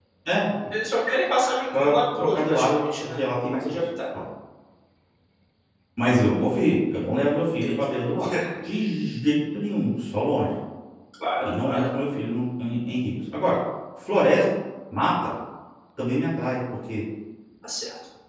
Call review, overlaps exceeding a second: present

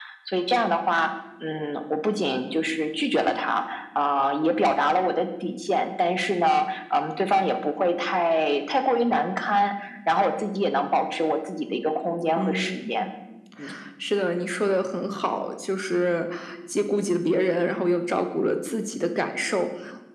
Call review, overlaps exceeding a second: none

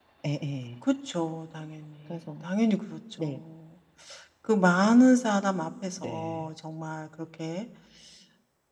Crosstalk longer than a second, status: none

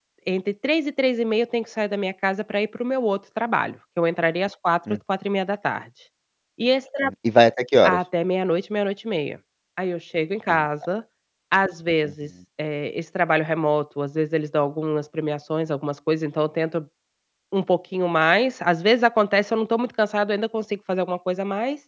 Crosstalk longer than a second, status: none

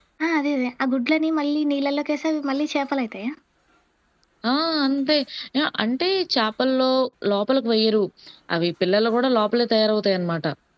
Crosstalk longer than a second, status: none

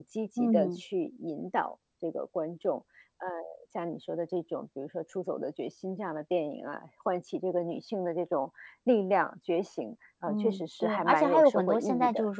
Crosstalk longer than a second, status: present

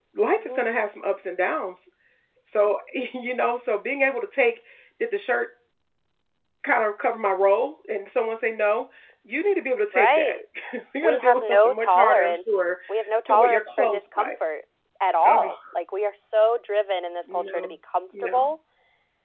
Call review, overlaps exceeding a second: present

